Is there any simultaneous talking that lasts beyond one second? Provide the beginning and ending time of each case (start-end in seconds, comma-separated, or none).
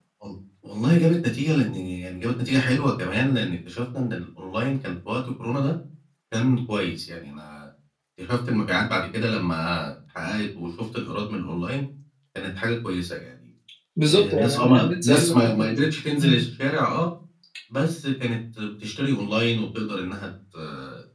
14.1-15.7